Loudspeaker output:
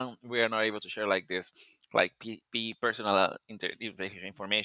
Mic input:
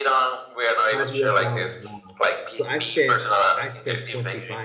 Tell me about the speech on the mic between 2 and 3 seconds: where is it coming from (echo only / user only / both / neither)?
both